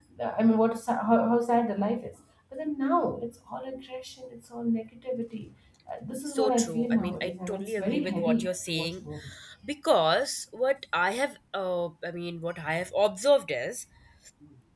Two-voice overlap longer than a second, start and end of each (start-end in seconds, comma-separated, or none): 6.3-9.0